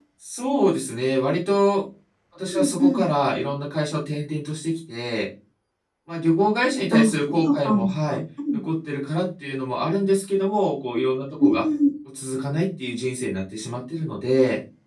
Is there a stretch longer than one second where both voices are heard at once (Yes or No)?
Yes